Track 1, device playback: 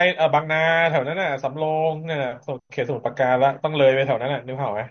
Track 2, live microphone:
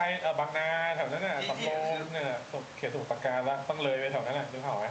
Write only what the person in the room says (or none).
ที่ที่คือ